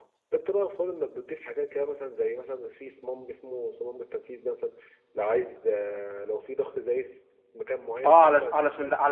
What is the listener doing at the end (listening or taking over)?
taking over